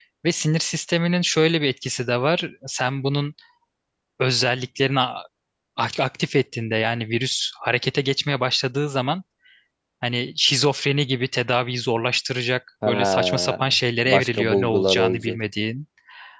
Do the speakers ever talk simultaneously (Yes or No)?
Yes